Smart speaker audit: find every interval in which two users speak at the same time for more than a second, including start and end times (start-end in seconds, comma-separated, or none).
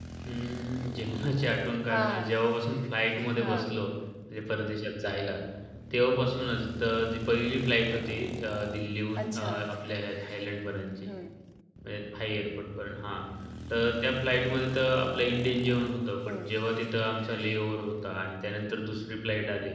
none